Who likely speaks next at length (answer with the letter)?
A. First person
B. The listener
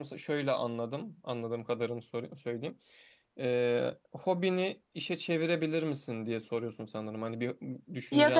B